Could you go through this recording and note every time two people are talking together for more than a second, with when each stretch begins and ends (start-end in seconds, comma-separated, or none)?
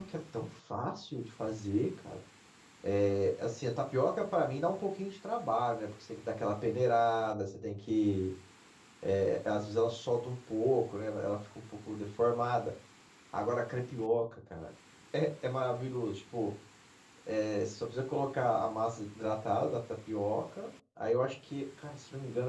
none